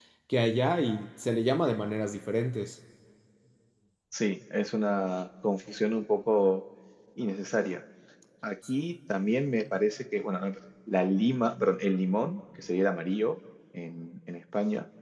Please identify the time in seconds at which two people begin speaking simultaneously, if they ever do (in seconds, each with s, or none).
none